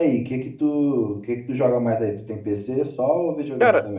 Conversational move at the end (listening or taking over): taking over